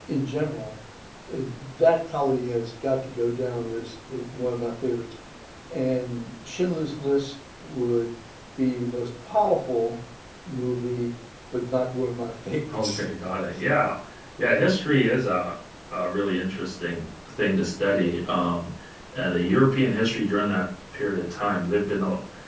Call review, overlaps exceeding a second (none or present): none